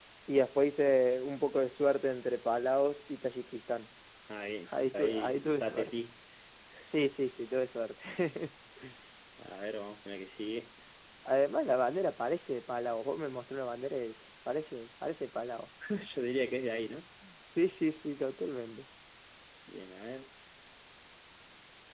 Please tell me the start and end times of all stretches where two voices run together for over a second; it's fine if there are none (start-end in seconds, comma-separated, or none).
4.7-5.9